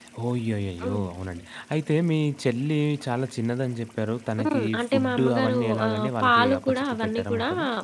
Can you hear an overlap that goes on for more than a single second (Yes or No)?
Yes